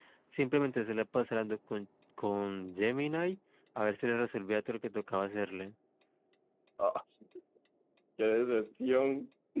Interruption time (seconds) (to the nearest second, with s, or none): none